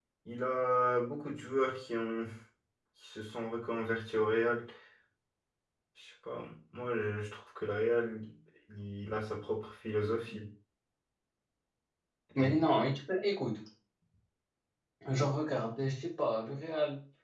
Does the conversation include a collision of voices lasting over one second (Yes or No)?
No